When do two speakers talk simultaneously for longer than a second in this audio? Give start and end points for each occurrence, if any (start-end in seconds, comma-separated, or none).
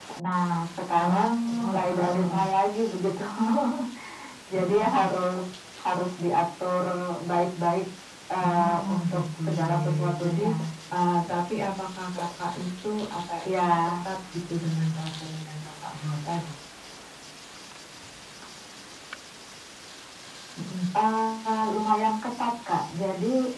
1.0-2.5, 8.5-10.4